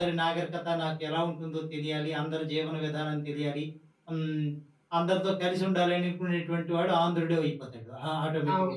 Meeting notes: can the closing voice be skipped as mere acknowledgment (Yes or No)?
Yes